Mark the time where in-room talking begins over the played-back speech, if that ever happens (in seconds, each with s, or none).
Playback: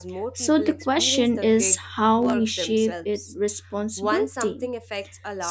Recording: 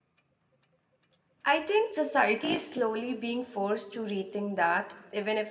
1.4 s